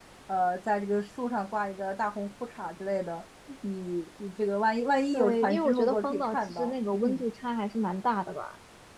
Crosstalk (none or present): present